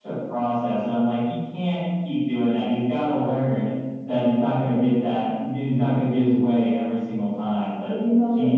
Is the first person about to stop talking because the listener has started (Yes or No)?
Yes